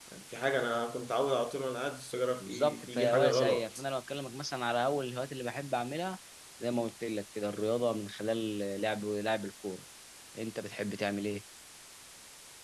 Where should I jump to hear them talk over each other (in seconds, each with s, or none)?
2.4 s